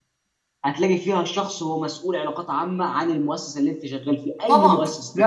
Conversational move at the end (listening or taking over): taking over